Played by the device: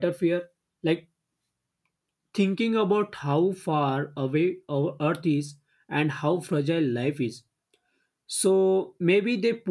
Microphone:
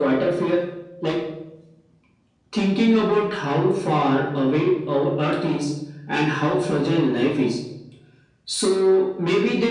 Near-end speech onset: none

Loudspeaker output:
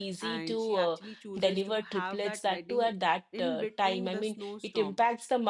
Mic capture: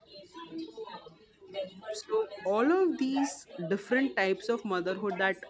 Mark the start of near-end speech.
1.9 s

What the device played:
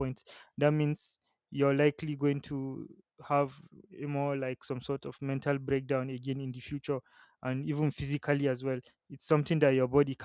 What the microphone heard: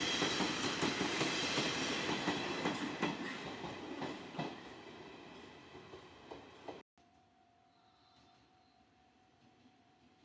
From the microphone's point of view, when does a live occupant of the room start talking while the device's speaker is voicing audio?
none

